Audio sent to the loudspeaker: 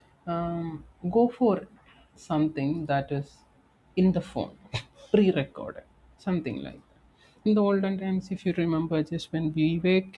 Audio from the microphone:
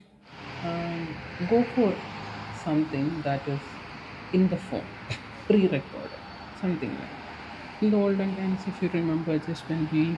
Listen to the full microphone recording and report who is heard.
echo only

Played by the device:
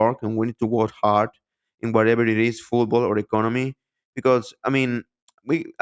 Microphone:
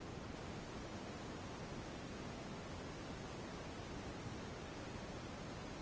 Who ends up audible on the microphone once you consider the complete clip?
neither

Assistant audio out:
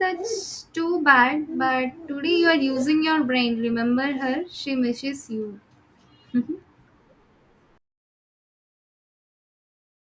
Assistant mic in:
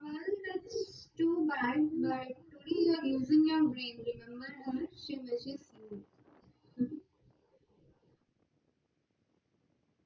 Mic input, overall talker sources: echo only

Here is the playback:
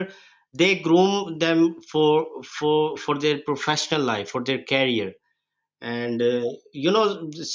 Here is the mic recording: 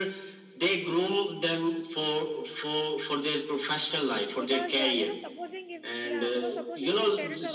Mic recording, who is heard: both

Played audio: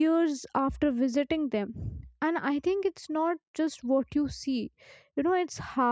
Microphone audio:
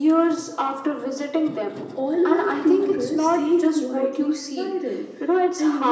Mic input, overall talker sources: both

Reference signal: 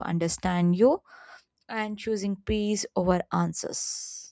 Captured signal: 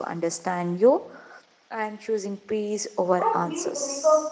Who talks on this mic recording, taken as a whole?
both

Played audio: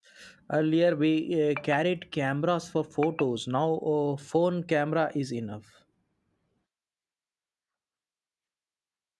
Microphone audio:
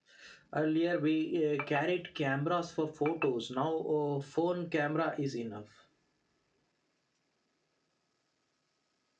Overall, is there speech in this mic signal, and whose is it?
echo only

